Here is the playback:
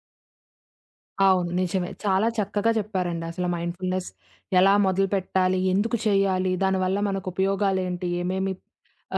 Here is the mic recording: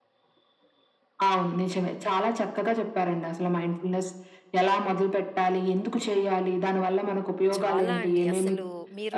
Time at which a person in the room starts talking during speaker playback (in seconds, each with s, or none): 7.6 s